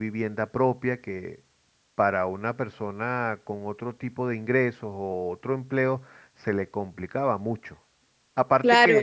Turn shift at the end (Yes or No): Yes